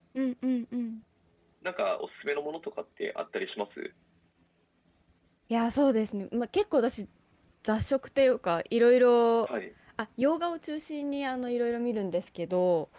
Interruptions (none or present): none